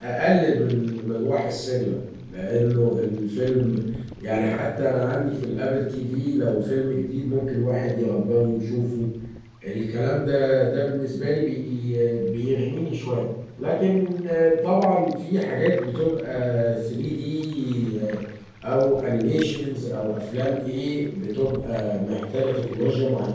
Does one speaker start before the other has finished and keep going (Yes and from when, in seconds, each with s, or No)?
No